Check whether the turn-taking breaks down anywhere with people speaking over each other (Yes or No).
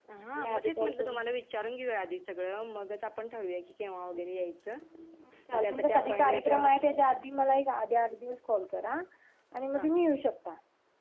Yes